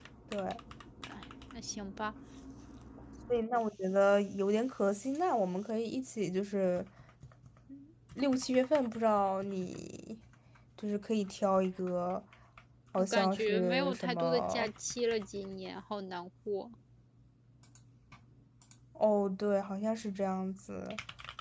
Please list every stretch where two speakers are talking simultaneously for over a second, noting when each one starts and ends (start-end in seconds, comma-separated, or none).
13.0-14.7